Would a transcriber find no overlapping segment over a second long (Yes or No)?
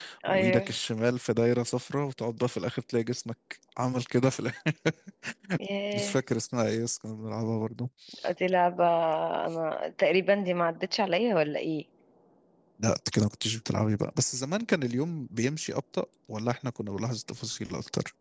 Yes